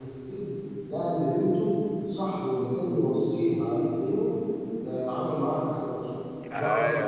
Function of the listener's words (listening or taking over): taking over